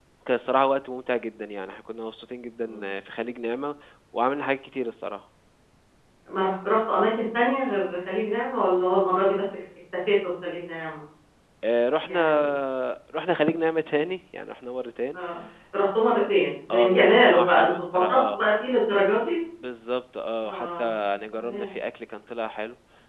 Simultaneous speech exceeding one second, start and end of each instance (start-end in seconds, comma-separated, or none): 16.7-18.4